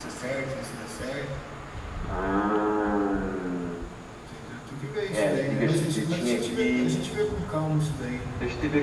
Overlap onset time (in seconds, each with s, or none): 5.1 s